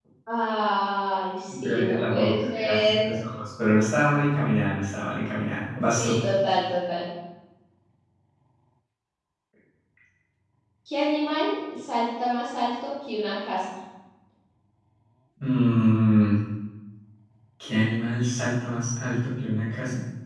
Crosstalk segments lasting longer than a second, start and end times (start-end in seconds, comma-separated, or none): 1.5-3.2